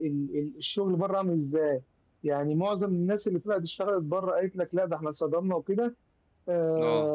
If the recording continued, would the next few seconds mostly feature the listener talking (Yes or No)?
No